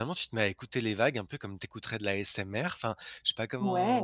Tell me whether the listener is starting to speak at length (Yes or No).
Yes